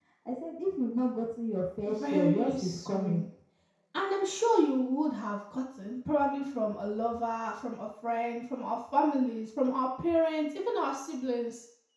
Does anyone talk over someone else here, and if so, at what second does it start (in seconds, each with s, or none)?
1.9 s